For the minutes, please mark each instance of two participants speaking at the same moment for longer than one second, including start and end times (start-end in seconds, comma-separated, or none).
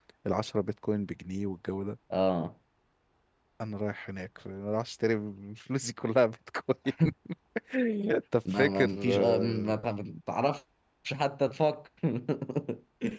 8.5-9.7